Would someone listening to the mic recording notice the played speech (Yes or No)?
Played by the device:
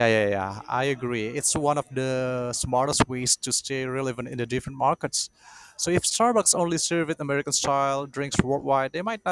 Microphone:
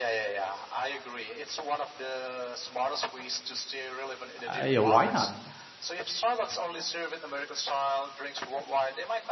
Yes